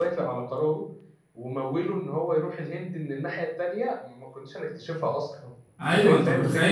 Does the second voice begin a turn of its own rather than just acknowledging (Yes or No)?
Yes